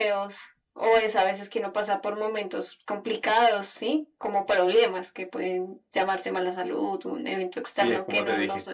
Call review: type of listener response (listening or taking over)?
taking over